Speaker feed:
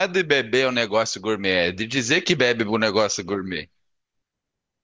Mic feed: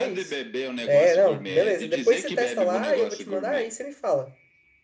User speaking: Yes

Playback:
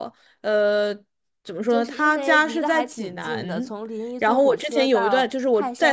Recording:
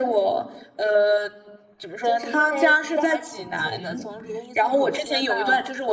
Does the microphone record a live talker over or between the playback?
No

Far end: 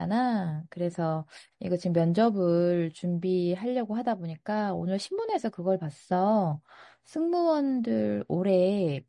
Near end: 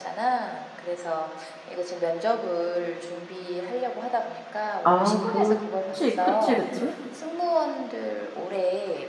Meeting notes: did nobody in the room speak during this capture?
No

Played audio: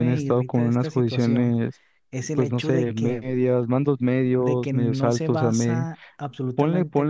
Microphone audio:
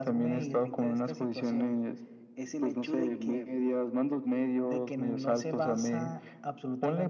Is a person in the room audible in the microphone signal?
No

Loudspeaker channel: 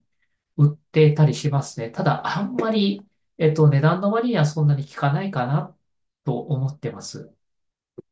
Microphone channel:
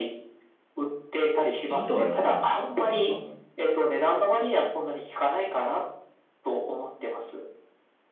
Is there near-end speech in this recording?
Yes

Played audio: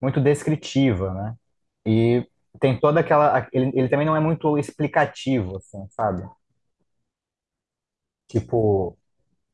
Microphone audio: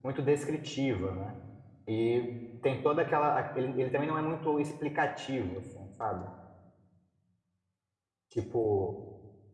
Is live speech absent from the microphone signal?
Yes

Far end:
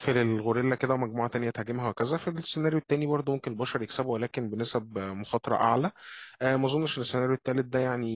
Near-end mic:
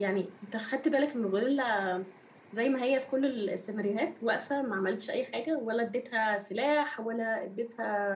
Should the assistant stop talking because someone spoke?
Yes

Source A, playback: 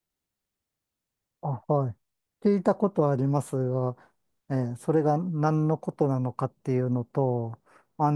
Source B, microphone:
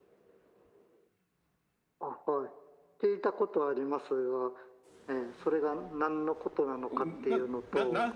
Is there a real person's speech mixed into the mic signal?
Yes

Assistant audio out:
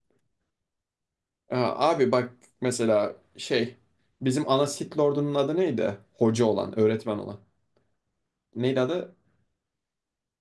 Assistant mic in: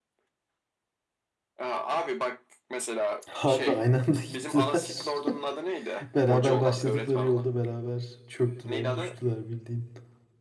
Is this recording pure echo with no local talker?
No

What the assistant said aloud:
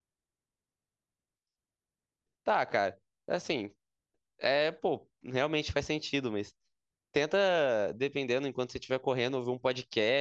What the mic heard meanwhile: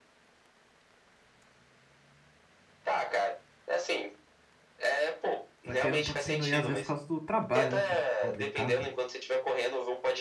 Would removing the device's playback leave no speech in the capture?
No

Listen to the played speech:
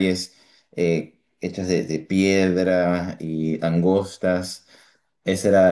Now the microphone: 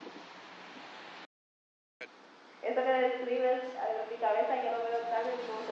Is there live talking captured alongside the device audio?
Yes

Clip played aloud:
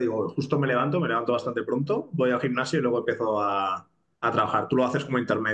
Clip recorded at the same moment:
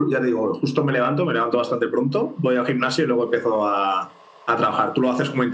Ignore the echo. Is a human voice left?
No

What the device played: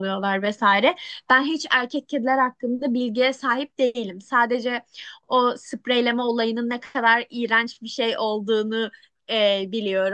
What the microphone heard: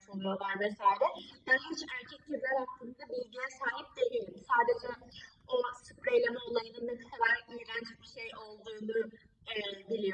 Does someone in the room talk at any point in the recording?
No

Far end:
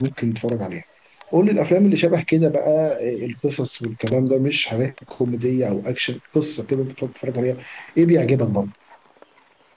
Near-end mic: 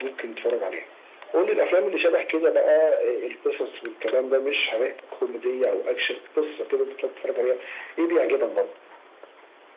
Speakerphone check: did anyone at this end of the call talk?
No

